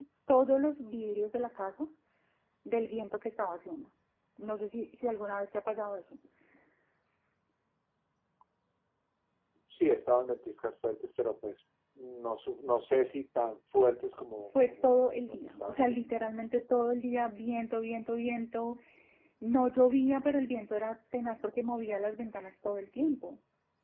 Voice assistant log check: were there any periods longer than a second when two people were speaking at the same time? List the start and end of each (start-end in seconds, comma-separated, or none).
14.7-16.0